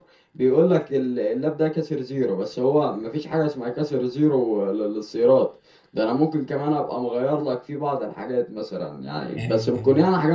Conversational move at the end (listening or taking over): listening